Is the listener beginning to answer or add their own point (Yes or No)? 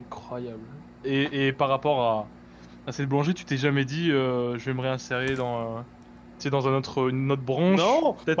Yes